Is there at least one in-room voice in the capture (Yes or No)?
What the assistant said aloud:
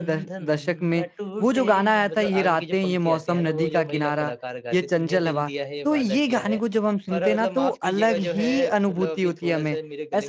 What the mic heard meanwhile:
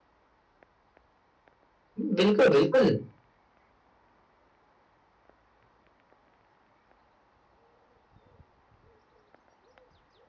Yes